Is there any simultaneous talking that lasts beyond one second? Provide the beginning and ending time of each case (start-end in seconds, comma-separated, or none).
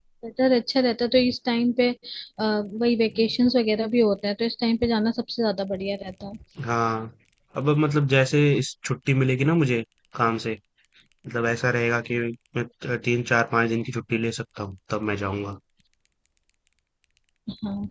none